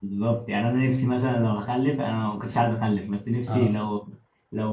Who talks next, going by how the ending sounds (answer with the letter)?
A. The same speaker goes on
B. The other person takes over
A